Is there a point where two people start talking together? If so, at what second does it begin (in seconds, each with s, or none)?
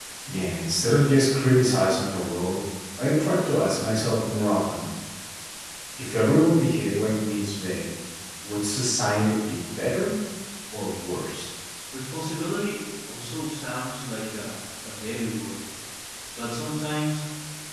none